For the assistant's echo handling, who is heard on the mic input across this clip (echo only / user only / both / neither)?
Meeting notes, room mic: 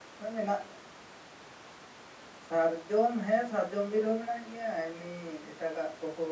user only